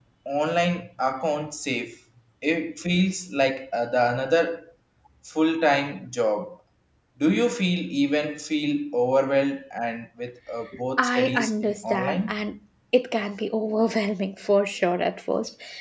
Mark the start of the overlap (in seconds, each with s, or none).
11.0 s